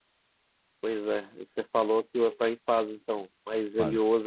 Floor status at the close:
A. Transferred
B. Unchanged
B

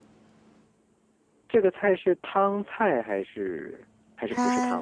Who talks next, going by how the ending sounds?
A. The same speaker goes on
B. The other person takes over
B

